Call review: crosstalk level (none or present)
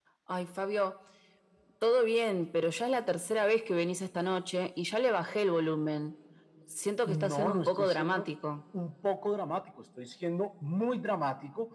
present